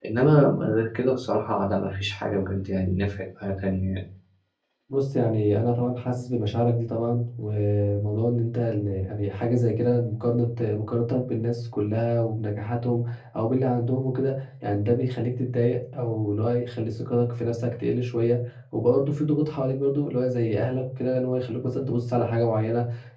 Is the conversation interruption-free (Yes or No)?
Yes